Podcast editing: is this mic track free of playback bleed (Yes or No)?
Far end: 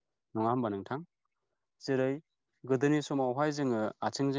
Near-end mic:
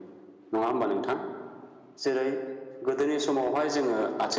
No